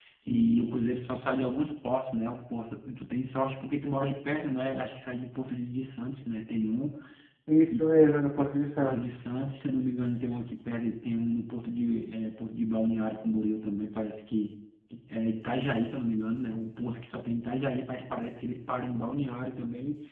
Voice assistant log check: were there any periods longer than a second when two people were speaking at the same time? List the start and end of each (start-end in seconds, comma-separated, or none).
none